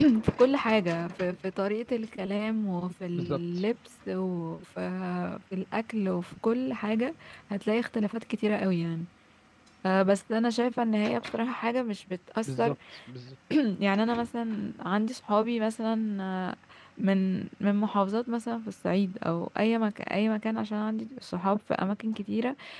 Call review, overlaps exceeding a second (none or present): none